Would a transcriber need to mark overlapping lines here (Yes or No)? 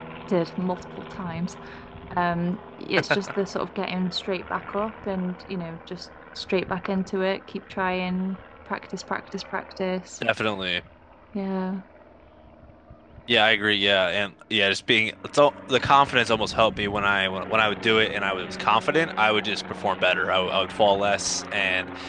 No